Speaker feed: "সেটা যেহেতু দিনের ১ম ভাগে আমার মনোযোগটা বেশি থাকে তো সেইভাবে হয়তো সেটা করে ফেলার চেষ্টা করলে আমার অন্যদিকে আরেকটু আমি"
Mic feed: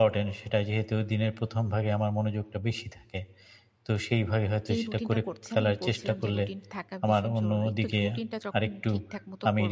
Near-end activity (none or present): present